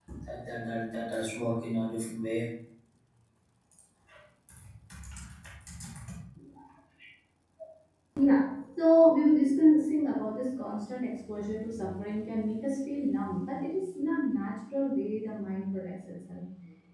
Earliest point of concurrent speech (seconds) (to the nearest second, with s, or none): none